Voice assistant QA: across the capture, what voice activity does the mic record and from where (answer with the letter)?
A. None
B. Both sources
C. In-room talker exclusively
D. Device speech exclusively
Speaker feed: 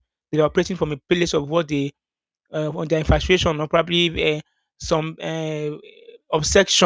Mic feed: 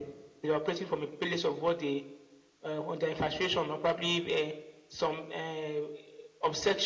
D